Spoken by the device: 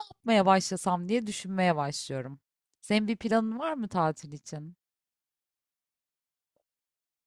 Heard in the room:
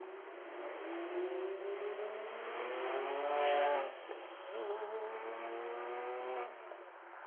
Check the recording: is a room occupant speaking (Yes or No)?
No